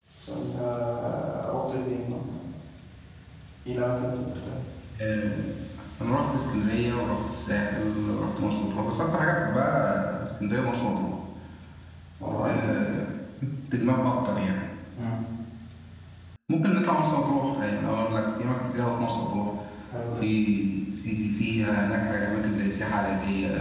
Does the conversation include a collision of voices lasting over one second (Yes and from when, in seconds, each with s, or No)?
No